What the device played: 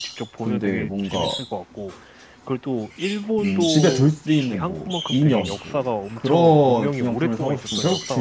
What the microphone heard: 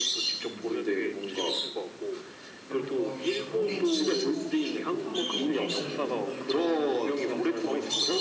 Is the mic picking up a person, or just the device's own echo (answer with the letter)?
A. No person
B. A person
B